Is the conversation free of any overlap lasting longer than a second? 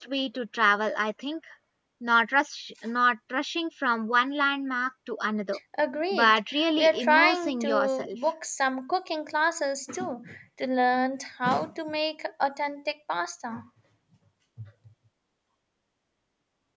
No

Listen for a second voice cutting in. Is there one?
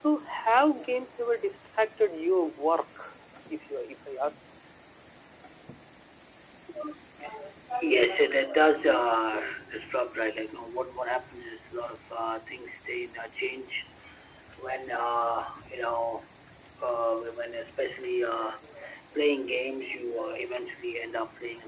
No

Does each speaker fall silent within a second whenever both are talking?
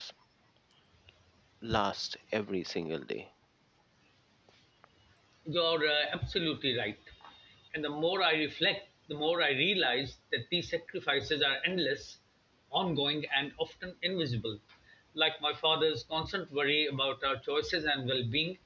Yes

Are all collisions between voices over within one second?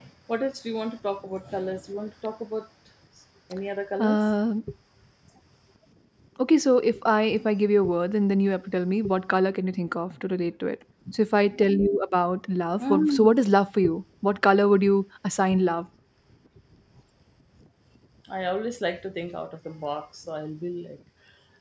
Yes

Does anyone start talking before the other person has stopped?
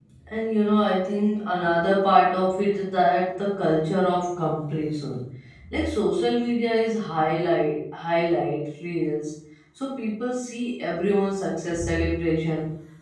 No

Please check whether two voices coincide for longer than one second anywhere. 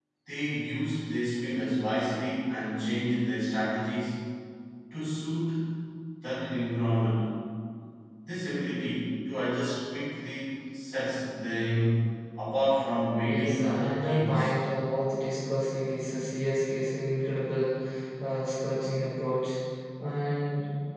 Yes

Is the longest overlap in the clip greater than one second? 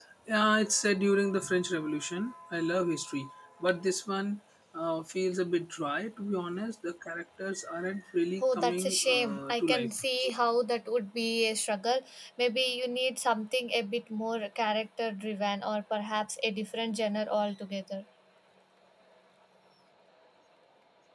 Yes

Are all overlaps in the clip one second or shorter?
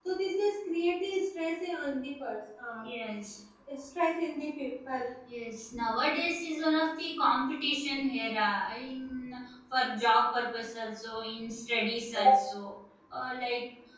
Yes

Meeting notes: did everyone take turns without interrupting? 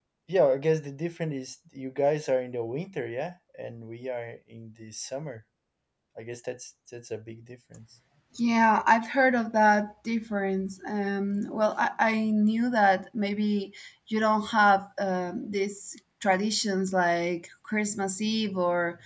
Yes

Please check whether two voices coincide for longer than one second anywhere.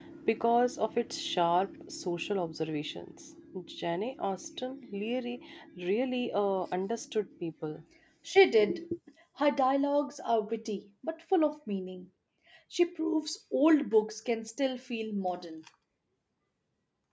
No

